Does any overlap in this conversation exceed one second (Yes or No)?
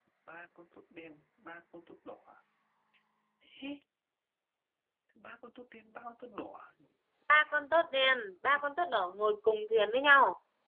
No